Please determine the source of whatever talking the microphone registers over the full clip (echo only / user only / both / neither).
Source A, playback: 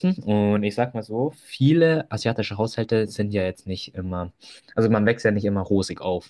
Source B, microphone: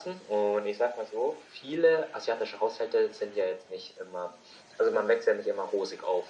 echo only